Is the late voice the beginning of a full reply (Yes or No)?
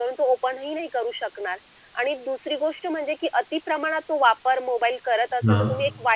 No